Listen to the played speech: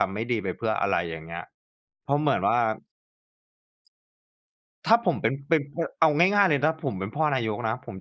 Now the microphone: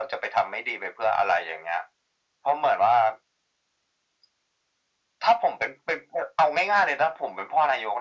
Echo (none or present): present